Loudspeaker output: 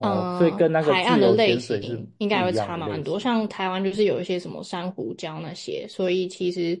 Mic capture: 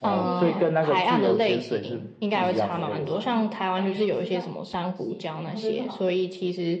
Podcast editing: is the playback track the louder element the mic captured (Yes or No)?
Yes